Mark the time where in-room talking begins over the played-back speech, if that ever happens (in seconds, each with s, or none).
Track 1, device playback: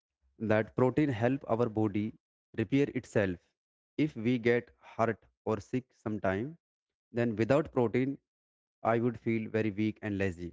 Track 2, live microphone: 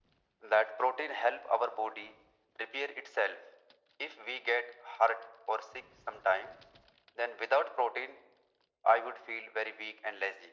none